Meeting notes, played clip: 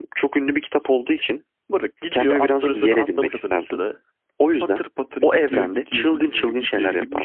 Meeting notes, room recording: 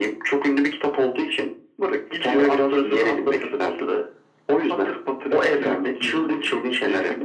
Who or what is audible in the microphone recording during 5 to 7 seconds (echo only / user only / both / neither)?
echo only